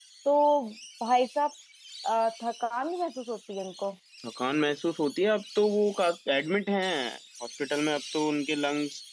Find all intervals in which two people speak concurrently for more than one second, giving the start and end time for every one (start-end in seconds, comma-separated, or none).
none